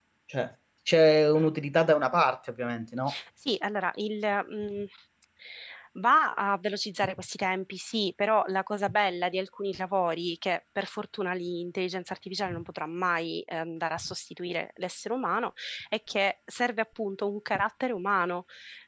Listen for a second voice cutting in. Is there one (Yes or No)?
No